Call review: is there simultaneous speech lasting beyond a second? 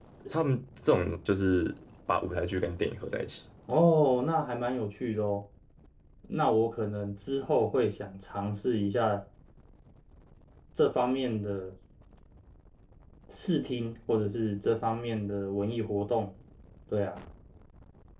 No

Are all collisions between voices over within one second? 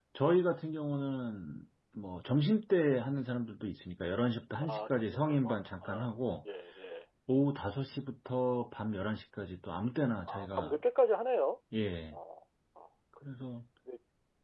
No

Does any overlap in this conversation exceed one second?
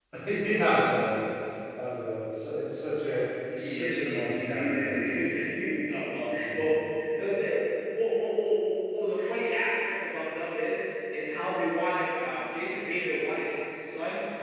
Yes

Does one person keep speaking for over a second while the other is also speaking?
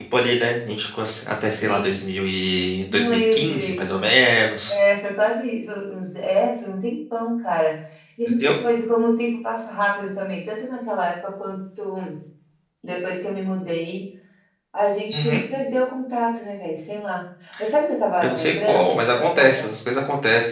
Yes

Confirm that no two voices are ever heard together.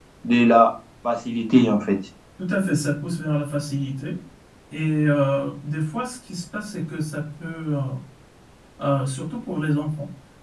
Yes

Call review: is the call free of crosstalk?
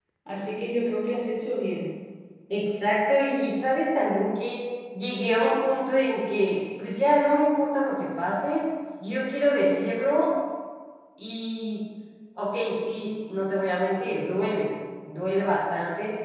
Yes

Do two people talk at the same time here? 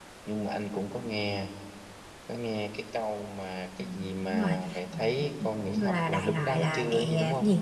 Yes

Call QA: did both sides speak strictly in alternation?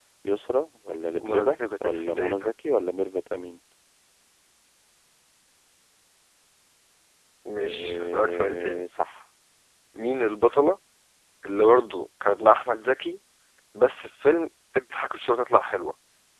No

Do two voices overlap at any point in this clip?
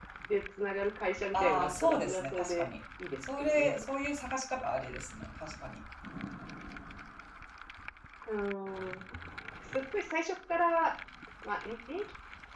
Yes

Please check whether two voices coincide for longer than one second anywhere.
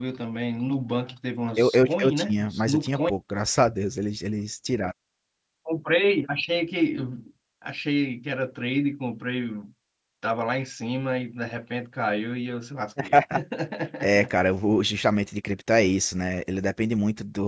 Yes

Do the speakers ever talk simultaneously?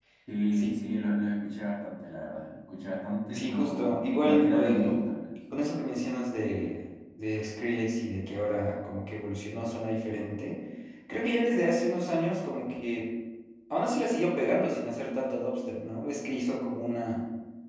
Yes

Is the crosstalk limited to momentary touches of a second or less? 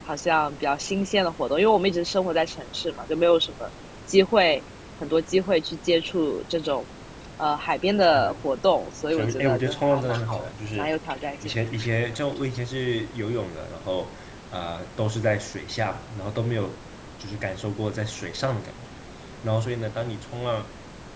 No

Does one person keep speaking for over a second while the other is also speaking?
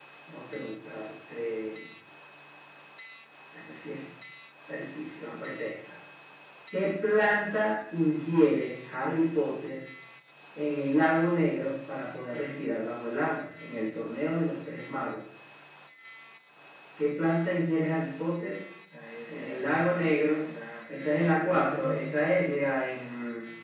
Yes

